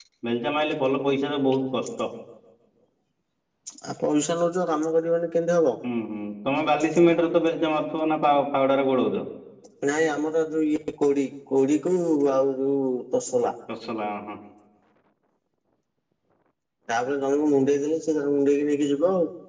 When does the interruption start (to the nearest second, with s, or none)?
none